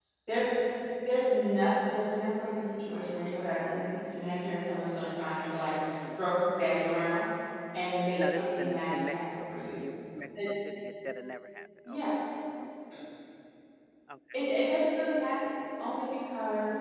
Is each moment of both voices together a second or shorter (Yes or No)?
No